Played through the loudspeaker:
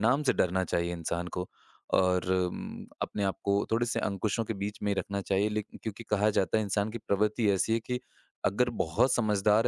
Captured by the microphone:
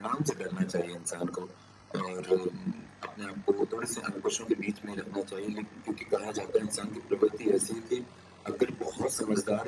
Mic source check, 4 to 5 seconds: echo only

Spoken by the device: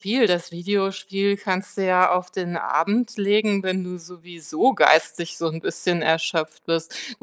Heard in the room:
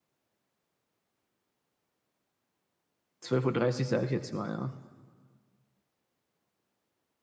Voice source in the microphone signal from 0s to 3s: neither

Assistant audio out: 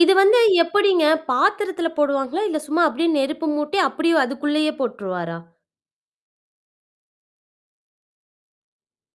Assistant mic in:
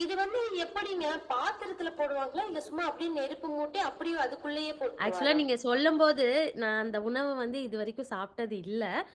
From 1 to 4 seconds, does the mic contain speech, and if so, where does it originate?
echo only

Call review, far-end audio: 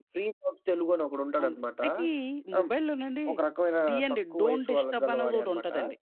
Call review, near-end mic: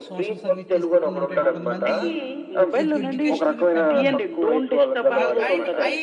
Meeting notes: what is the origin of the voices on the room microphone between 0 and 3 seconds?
both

